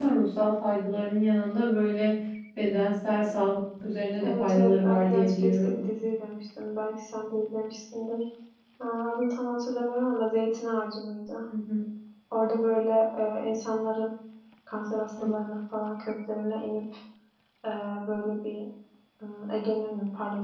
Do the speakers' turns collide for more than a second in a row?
Yes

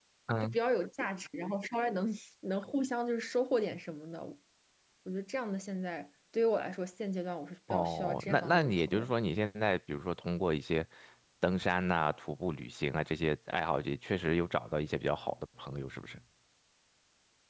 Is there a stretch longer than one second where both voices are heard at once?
Yes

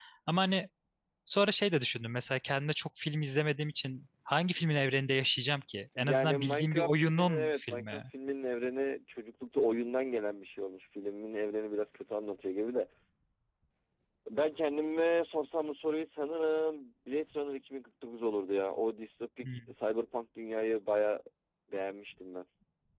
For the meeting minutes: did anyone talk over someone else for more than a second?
Yes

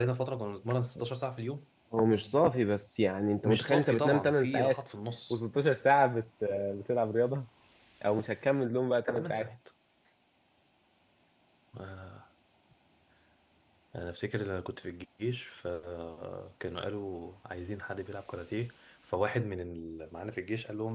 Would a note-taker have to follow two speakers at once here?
Yes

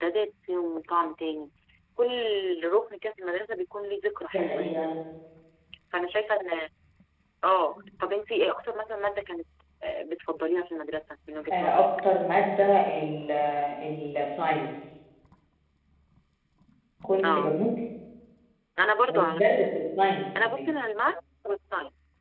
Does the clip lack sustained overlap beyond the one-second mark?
Yes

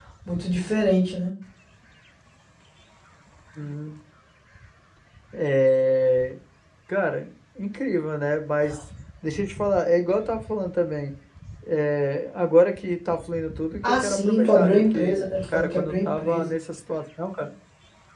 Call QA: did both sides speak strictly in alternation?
No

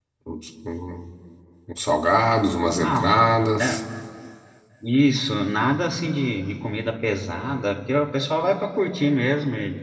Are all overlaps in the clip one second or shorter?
Yes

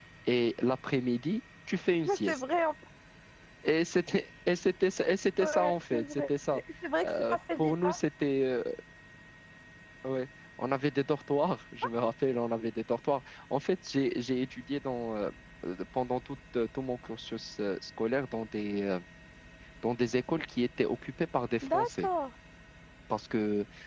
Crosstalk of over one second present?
Yes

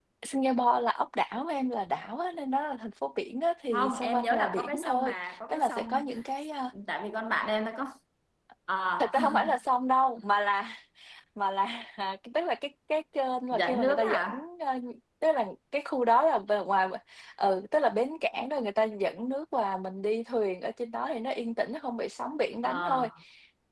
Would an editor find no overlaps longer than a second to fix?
No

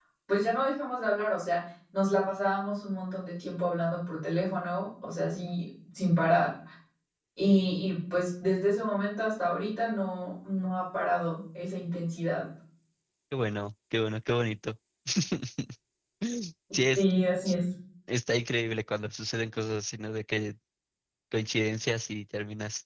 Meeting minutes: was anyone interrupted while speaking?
No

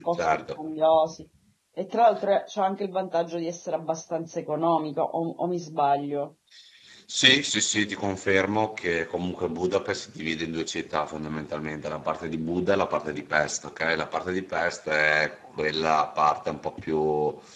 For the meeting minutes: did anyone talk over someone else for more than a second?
No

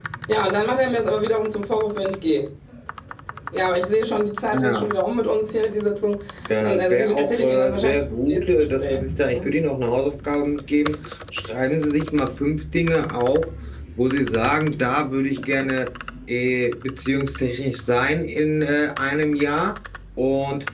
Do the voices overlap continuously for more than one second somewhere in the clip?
Yes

